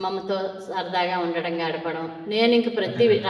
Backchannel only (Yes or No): Yes